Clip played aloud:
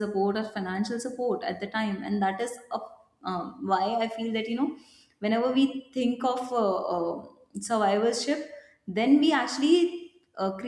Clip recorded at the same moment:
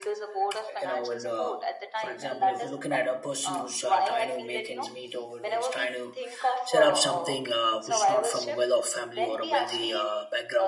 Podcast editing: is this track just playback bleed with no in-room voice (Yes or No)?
No